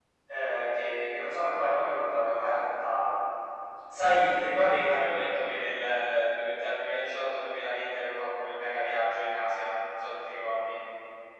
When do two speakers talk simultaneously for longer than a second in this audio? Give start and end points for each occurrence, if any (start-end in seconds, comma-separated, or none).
none